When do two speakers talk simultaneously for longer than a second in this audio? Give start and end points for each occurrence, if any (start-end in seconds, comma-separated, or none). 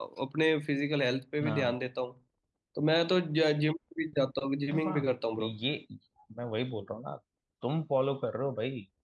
none